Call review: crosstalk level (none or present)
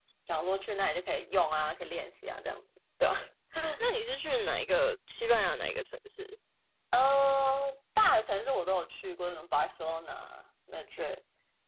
none